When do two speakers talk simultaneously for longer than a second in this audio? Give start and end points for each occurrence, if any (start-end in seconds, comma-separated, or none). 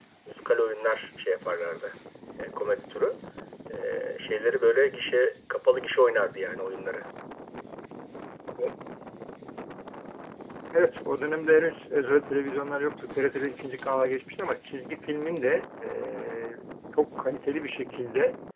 none